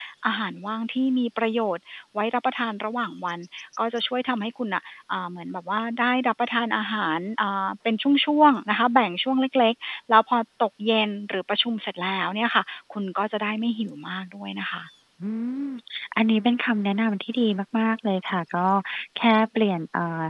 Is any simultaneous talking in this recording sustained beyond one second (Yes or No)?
No